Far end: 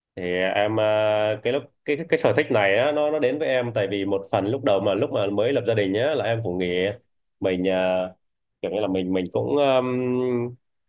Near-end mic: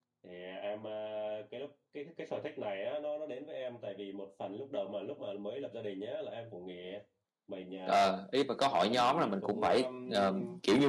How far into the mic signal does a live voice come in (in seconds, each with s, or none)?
7.8 s